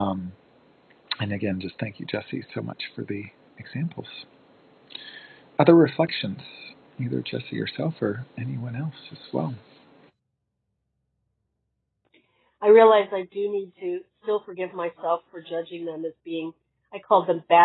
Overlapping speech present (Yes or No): No